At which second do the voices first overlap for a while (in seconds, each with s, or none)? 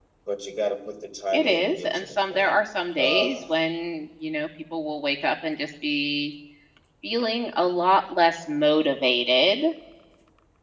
1.3 s